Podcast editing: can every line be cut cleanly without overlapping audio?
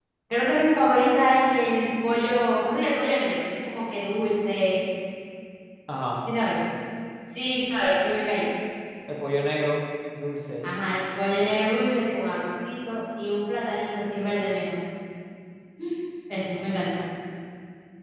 Yes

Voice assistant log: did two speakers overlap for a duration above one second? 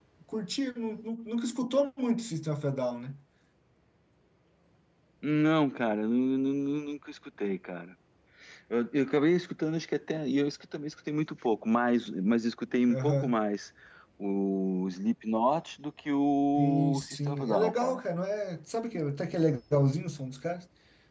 Yes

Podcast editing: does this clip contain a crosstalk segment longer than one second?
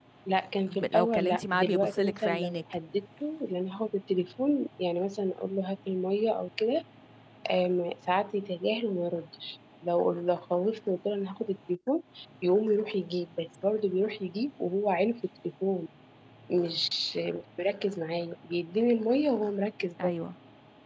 Yes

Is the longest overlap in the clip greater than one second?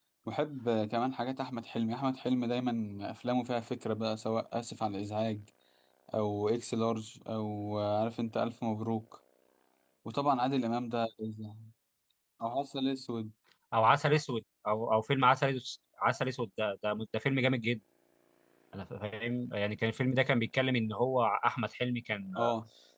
No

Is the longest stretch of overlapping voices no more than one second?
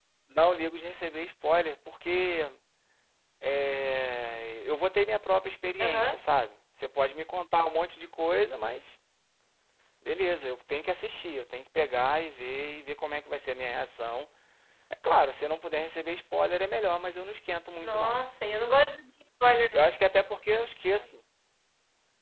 Yes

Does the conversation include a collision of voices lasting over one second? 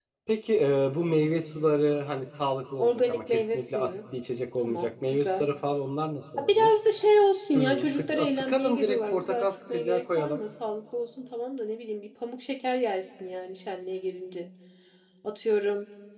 Yes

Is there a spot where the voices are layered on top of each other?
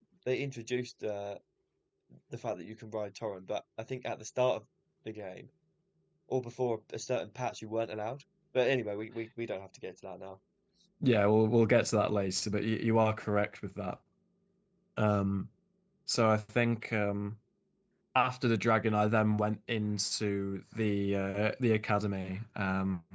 No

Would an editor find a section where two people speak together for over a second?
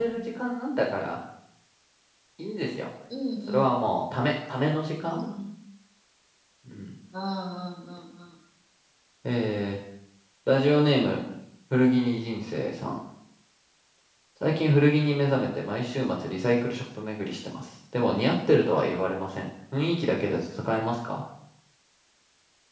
No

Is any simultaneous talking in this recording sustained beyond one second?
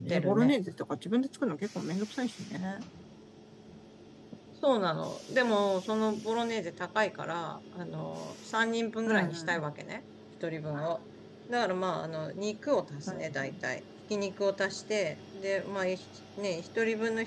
No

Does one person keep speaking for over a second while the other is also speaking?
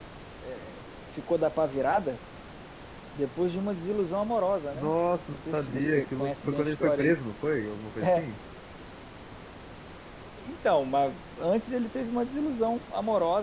Yes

